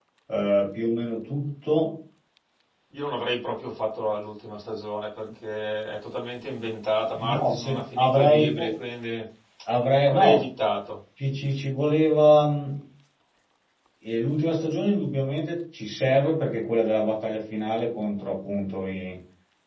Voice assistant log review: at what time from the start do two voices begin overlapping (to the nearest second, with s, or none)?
7 s